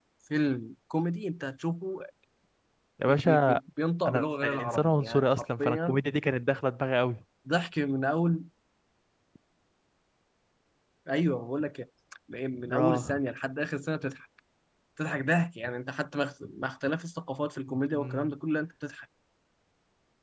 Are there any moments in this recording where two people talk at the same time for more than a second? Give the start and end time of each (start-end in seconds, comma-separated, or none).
4.1-6.0